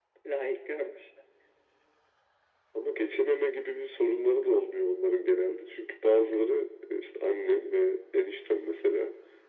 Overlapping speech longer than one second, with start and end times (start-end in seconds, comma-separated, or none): none